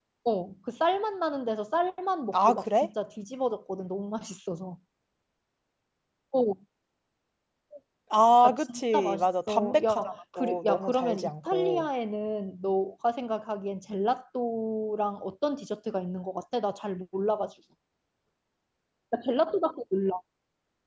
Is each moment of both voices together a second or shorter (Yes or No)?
No